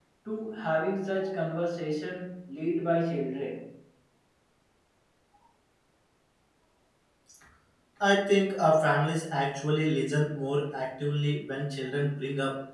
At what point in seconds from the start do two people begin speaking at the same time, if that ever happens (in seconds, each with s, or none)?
none